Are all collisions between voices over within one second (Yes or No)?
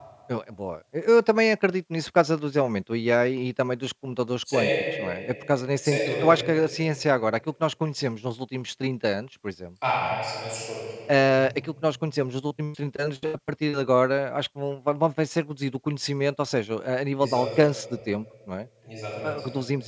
Yes